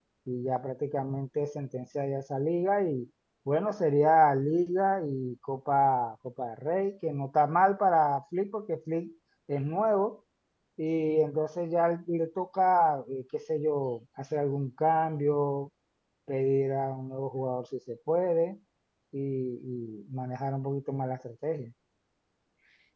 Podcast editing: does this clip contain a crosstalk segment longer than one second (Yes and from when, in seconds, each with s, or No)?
No